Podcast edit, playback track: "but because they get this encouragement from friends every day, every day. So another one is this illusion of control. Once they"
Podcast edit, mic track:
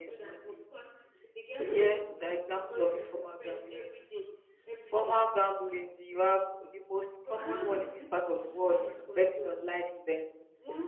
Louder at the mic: user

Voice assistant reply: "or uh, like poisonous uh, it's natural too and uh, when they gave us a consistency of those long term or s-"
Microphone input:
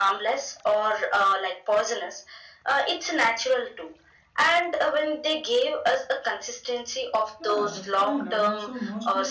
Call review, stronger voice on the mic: echo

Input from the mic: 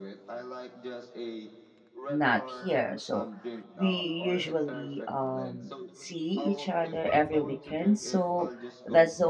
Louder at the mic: user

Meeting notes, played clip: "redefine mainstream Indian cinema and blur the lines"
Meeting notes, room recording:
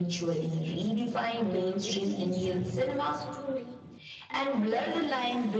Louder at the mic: echo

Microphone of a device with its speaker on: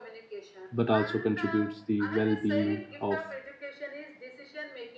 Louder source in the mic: user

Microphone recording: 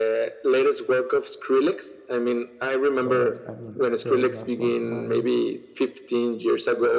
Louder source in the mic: echo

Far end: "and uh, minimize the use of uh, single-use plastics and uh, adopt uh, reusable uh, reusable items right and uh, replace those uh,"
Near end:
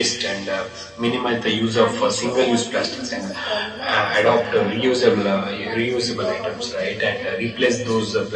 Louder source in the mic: echo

